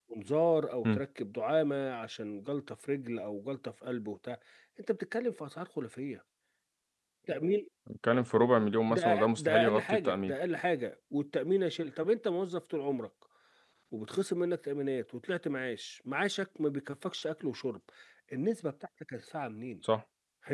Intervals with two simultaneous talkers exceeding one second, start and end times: 8.9-10.3

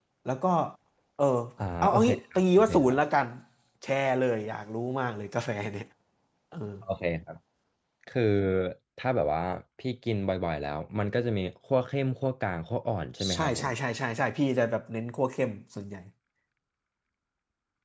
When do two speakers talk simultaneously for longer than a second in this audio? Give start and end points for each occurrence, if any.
1.8-3.0

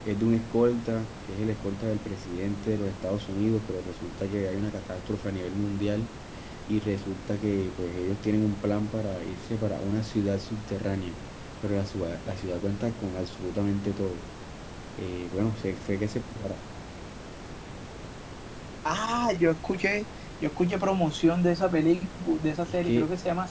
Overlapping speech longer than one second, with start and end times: none

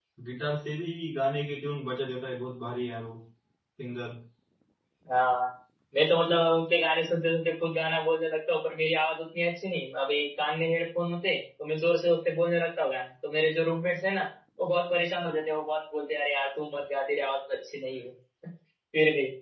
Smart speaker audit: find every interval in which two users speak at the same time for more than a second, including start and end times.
none

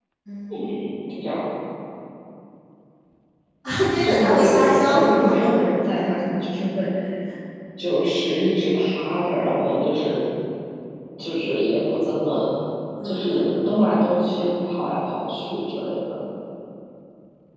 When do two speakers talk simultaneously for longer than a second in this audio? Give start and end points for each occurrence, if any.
4.0-5.3

